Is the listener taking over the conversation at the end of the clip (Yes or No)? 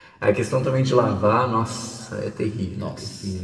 Yes